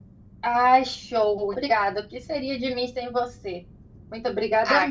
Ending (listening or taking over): taking over